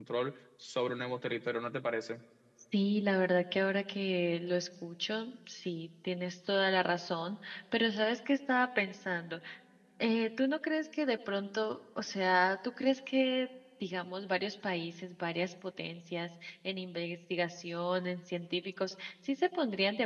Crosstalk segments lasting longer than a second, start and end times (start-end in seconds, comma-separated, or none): none